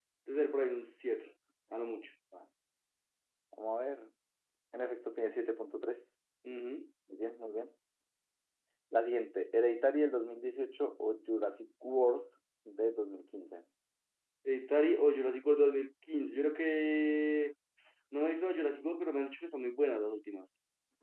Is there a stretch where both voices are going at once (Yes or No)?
No